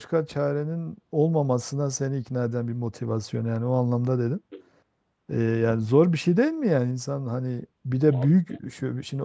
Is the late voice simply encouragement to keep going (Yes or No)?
Yes